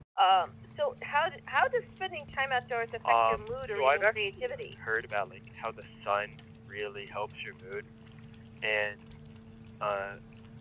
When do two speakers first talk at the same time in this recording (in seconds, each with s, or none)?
3.0 s